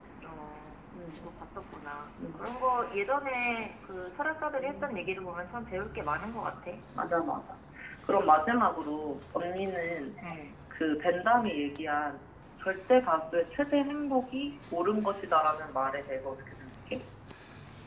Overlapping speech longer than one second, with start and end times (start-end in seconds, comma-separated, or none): none